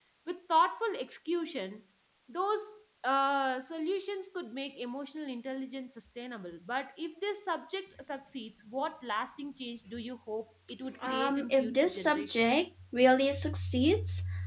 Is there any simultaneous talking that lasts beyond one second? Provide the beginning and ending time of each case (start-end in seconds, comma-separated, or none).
11.0-12.5